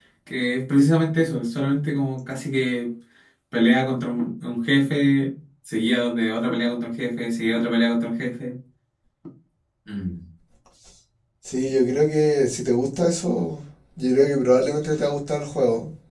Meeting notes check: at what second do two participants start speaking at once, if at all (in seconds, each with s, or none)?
none